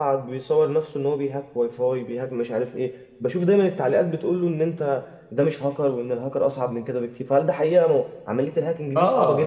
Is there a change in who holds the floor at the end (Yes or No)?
Yes